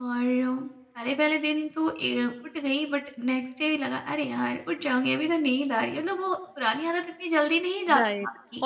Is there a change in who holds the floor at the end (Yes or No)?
Yes